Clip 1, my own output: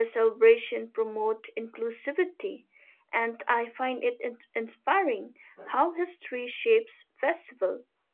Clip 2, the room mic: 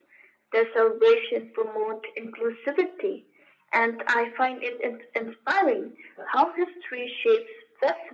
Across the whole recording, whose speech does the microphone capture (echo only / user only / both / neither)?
echo only